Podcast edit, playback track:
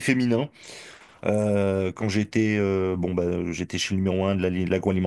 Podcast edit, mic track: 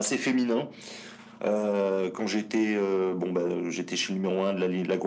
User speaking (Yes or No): No